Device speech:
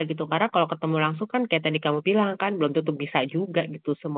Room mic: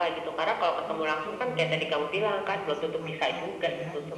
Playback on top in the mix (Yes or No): Yes